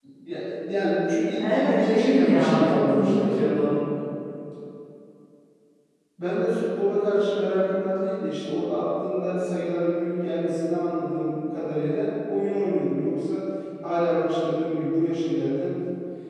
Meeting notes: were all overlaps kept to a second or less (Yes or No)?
No